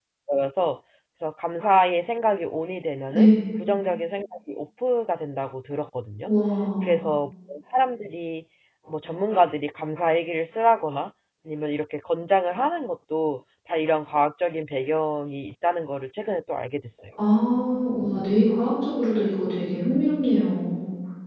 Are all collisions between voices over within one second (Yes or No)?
Yes